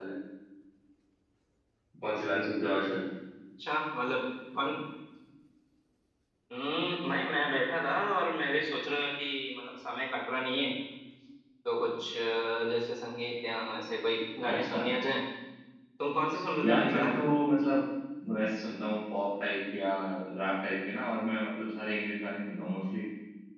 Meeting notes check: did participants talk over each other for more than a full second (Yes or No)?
No